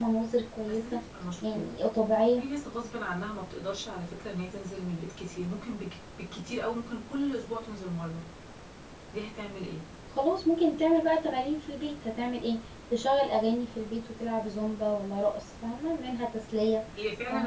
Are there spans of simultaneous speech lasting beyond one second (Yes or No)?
No